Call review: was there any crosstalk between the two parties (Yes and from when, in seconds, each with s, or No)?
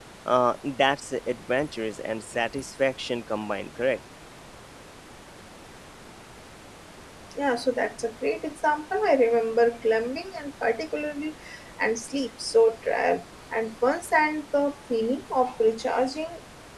No